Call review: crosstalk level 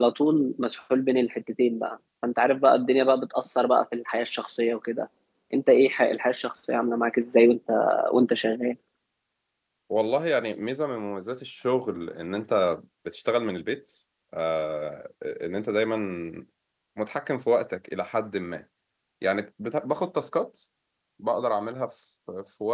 none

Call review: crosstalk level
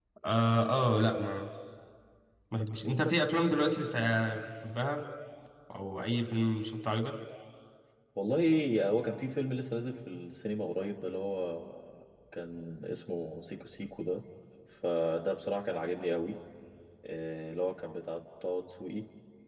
none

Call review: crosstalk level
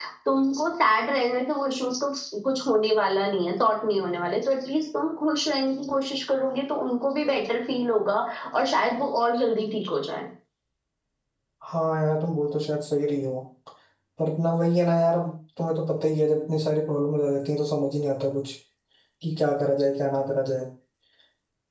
none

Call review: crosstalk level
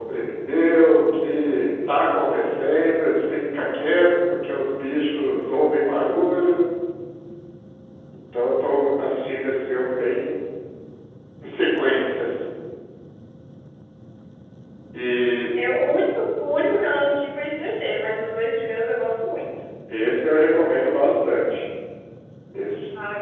none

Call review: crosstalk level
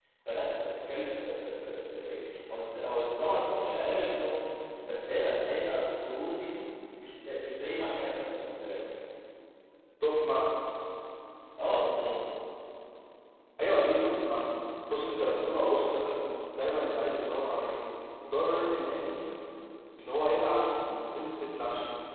none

